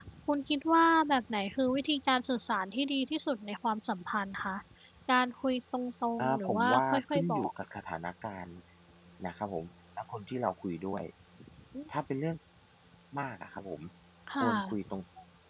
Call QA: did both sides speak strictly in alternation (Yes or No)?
No